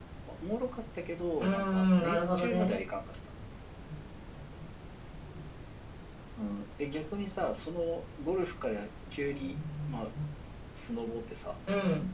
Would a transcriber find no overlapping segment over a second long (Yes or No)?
No